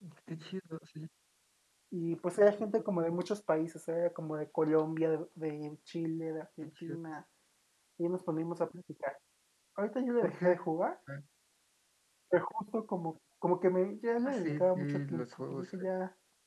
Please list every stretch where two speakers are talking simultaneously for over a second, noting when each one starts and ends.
14.2-15.8

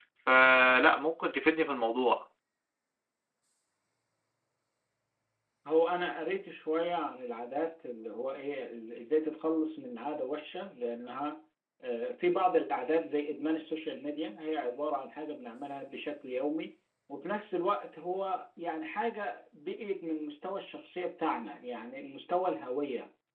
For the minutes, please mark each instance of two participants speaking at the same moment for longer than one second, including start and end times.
none

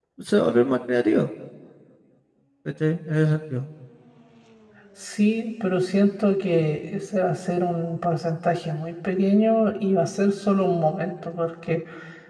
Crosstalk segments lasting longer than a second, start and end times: none

